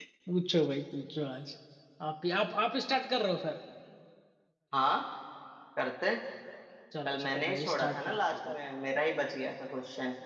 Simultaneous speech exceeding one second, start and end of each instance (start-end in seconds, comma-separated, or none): 7.0-8.5